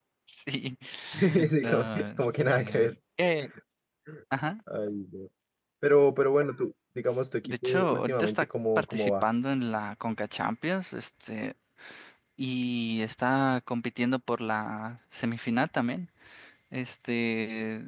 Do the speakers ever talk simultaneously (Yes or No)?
Yes